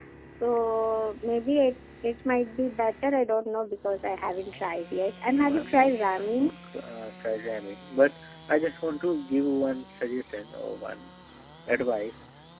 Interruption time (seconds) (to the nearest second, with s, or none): 5 s